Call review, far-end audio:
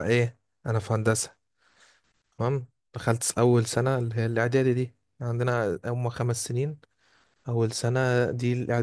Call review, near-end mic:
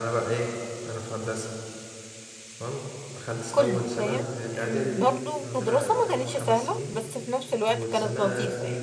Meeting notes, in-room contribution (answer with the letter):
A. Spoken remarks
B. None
A